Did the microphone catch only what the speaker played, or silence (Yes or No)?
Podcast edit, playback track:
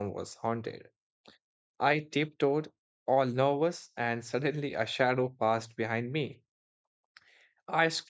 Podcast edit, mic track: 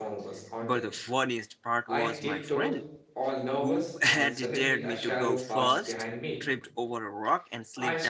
No